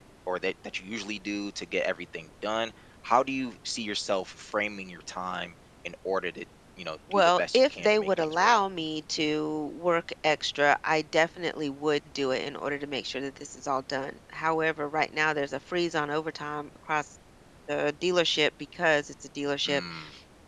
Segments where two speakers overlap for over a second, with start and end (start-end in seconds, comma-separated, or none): 7.1-8.6